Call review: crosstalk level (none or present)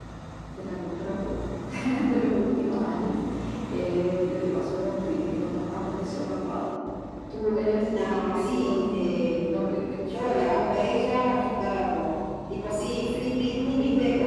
present